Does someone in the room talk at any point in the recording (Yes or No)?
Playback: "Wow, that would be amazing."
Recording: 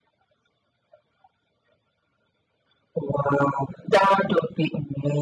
No